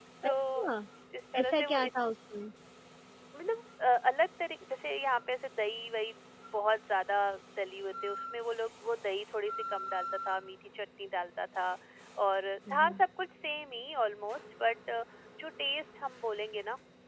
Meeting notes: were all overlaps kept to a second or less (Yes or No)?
Yes